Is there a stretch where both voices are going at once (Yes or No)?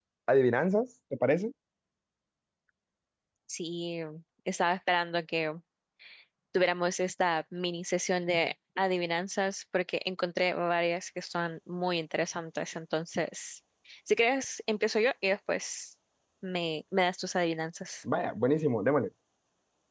No